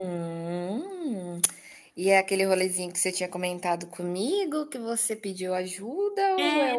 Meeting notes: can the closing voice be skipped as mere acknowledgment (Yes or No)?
No